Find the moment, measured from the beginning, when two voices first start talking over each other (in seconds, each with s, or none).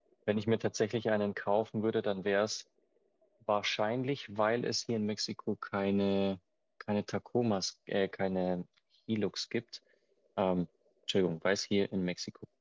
none